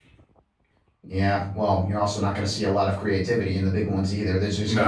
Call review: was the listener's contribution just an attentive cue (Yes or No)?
Yes